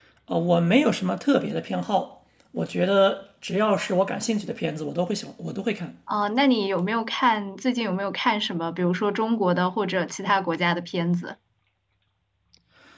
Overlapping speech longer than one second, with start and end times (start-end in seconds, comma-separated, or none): none